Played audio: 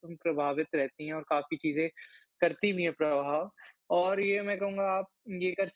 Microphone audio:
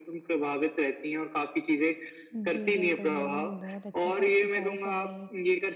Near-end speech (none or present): present